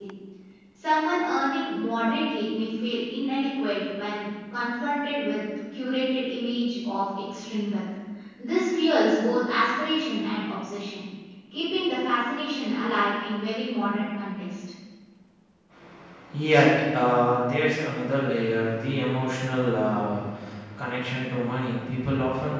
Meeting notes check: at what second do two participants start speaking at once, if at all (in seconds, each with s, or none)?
none